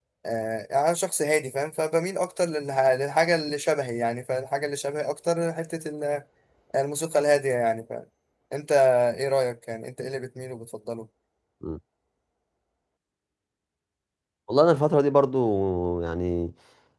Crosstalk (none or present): none